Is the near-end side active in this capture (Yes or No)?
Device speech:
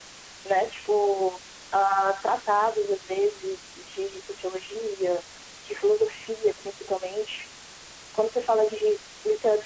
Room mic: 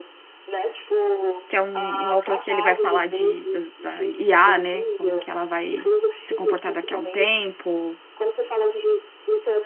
Yes